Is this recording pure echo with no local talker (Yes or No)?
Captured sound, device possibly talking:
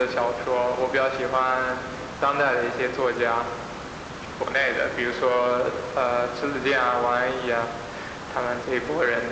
Yes